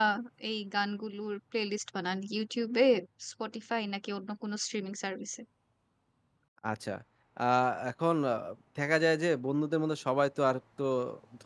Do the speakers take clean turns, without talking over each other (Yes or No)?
Yes